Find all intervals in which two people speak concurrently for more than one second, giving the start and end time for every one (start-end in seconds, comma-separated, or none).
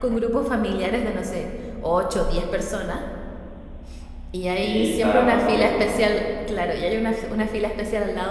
4.6-6.1